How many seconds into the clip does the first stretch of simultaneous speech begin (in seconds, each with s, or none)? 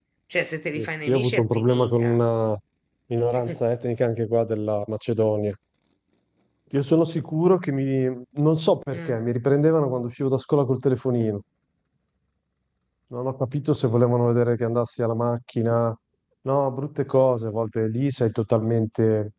0.8 s